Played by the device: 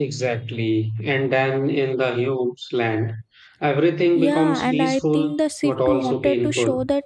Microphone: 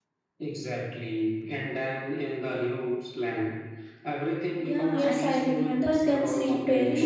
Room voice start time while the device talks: 4.9 s

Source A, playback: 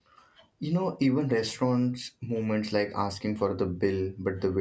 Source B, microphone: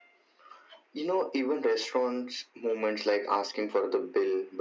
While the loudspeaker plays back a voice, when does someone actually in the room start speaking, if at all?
none

